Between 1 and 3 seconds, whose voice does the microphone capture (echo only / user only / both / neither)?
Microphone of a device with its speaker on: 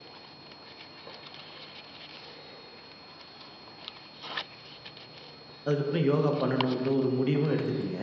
neither